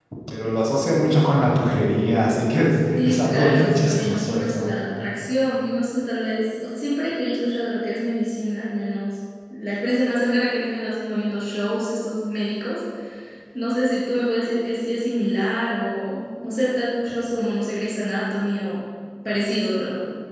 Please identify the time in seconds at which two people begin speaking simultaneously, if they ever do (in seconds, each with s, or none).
3.0 s